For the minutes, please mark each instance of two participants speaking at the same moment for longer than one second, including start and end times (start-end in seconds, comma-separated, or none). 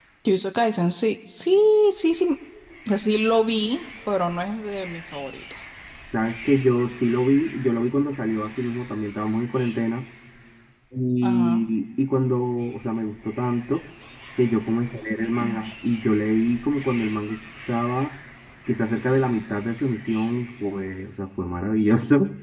none